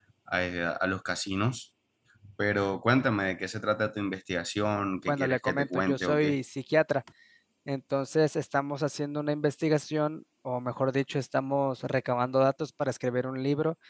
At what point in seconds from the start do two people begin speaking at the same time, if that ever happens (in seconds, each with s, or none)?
5.1 s